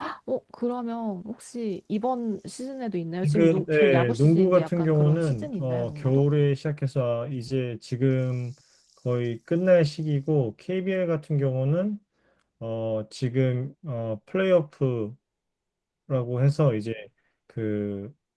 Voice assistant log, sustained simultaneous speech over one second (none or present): present